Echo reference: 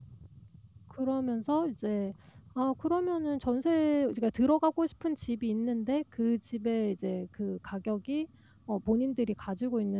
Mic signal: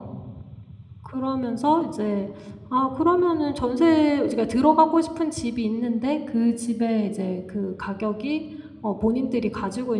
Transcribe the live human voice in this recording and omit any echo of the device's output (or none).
none